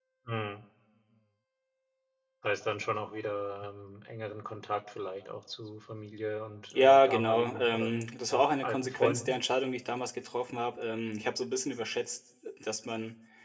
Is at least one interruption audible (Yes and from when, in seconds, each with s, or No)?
Yes, from 6.7 s